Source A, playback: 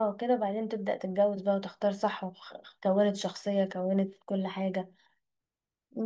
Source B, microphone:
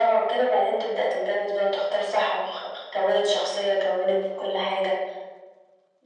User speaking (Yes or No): No